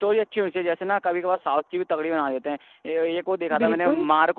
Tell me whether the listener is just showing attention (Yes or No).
Yes